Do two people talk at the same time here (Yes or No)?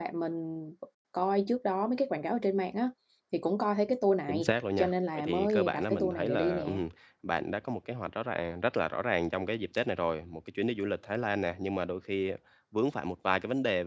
Yes